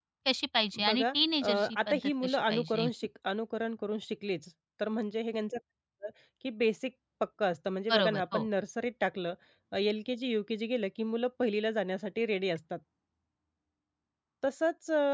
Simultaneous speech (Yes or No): Yes